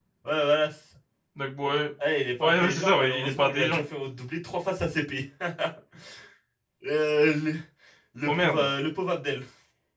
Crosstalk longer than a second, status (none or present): present